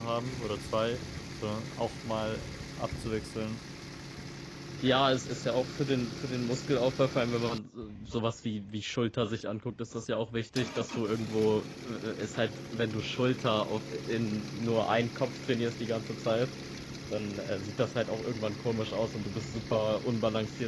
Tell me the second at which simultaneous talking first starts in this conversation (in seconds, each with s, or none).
none